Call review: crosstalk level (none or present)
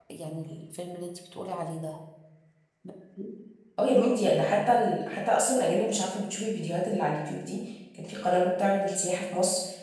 none